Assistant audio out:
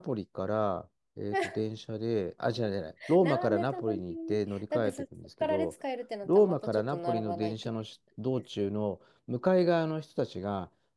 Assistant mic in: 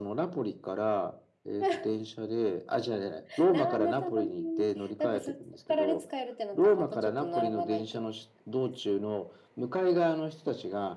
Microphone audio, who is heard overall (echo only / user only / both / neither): echo only